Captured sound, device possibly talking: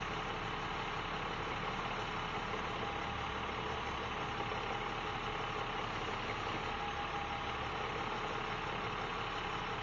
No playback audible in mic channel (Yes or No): Yes